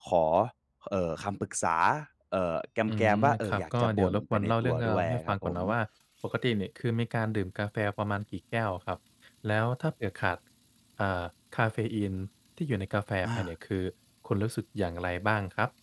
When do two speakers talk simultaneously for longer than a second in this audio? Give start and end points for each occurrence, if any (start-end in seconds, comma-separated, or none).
2.9-5.5